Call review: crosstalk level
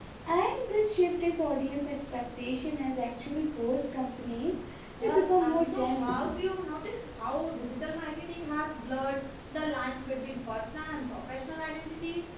present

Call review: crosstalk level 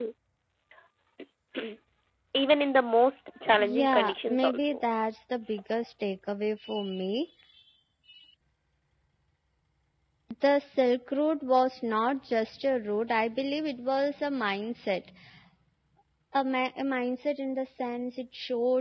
present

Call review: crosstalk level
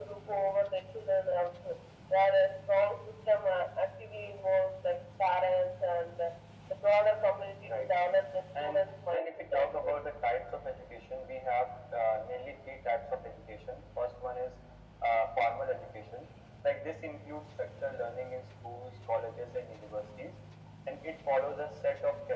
present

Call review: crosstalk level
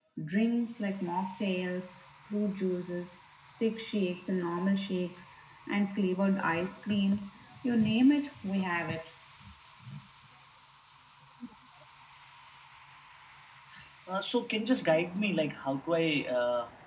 none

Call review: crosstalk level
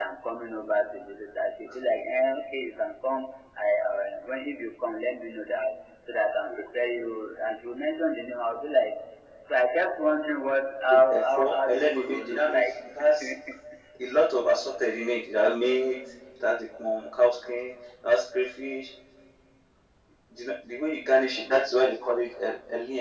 present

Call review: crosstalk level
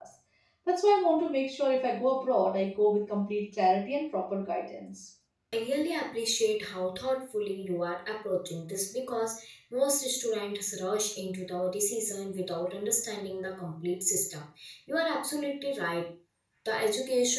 none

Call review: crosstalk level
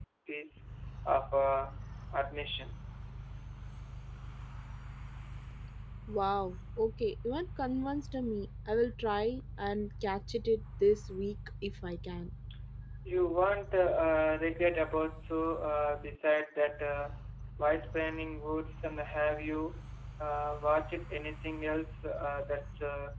none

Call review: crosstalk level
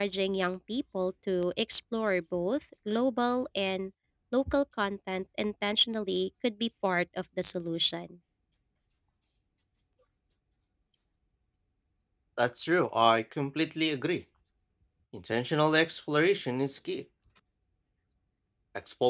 none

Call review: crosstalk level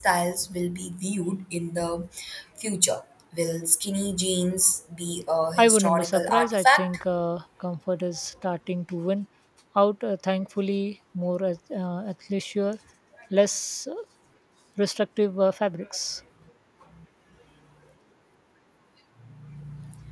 present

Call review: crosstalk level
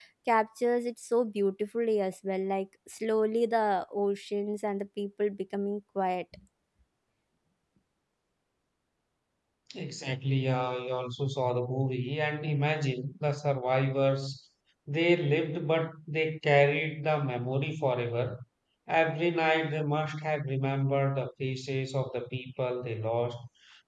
none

